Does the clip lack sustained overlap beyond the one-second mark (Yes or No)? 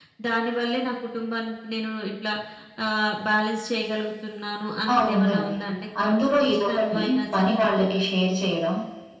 No